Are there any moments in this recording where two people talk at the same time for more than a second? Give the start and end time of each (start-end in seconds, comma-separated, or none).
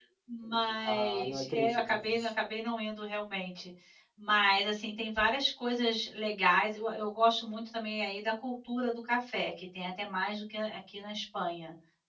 0.8-2.3